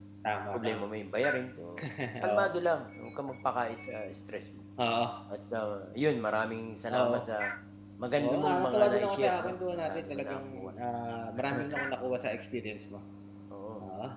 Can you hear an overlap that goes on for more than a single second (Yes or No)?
Yes